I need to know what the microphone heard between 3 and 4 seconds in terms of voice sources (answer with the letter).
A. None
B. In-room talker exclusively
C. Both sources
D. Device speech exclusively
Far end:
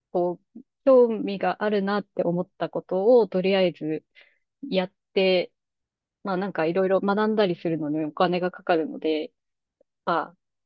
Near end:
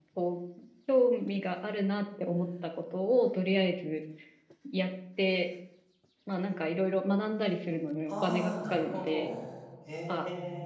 D